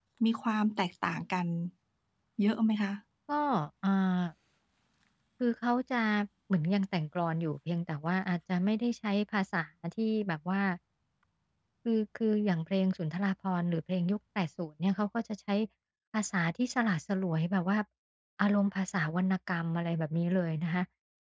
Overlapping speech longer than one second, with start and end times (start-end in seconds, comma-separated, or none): none